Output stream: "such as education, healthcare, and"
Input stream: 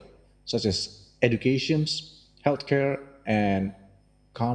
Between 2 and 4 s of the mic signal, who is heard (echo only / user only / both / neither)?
echo only